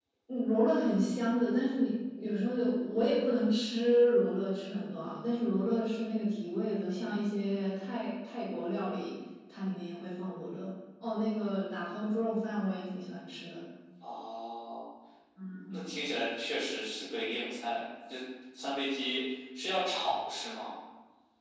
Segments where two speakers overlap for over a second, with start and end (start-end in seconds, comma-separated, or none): none